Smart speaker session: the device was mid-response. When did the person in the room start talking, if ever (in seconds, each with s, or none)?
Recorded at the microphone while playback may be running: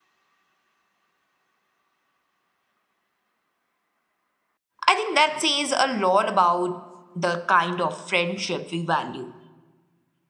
4.8 s